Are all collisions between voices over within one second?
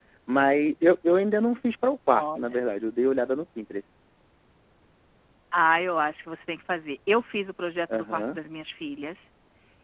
Yes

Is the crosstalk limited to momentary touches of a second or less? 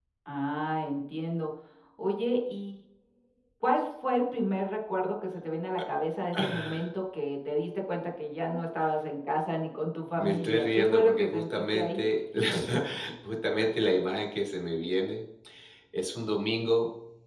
No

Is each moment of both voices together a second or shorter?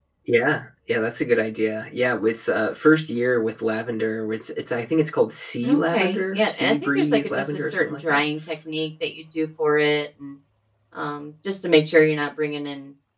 No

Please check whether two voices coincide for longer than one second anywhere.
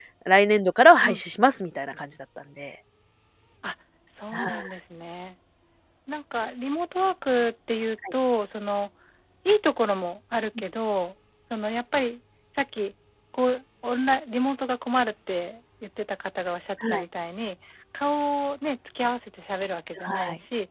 No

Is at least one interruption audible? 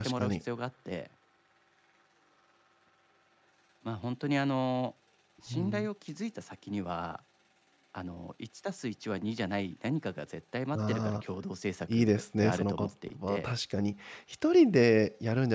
Yes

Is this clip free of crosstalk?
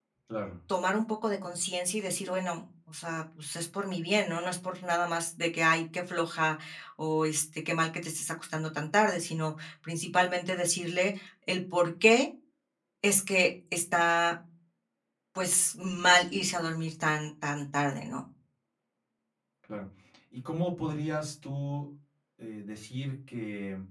Yes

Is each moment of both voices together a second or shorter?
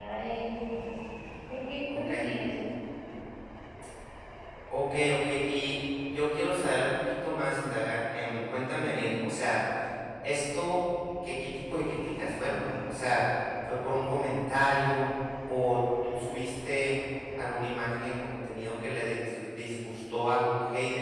Yes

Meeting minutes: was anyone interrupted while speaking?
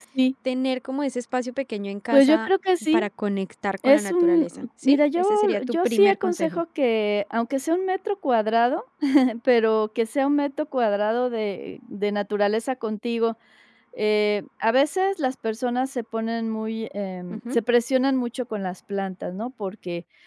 Yes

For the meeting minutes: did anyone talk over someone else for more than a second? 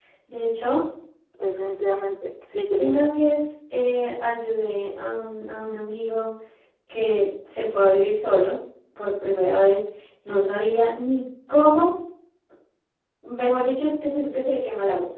No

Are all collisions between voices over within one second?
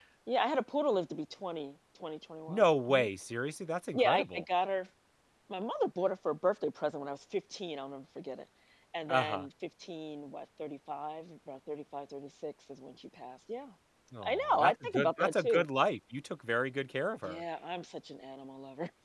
No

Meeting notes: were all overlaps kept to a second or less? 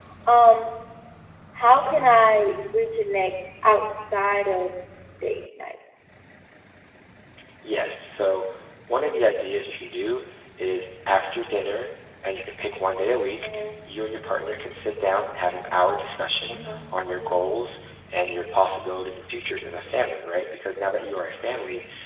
Yes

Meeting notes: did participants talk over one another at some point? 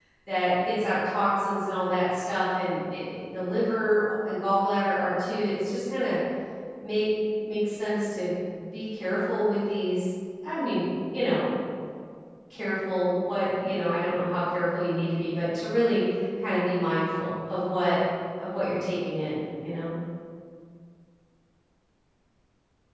No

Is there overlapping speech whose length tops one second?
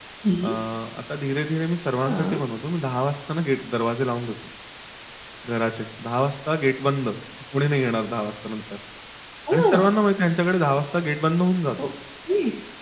No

